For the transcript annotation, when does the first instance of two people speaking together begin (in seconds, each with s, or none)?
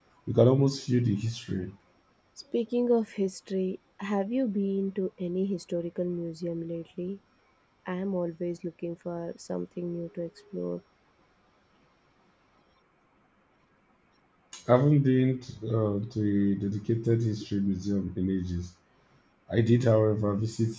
none